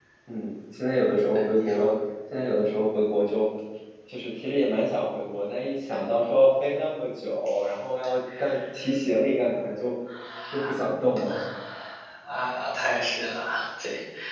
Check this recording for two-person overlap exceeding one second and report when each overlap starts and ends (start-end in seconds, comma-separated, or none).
none